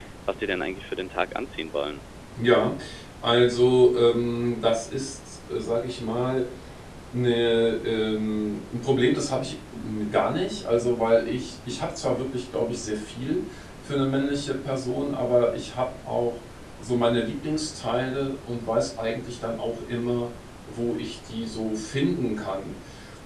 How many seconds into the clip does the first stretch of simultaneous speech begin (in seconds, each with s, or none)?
none